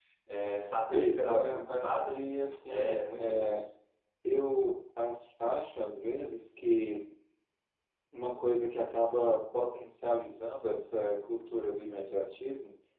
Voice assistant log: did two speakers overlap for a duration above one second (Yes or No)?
Yes